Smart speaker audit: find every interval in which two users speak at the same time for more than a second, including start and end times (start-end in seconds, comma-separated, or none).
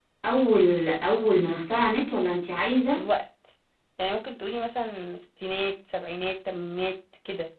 none